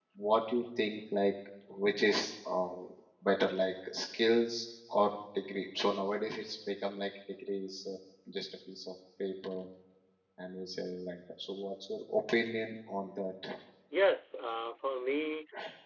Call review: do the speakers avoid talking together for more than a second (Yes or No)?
Yes